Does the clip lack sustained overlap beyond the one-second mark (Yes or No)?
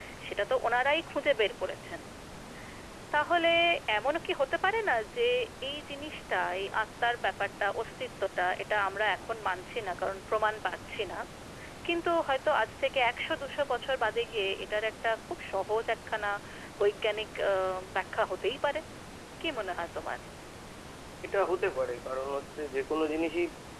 Yes